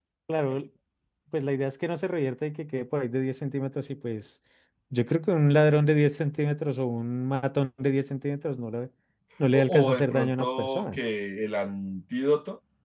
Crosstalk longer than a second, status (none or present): present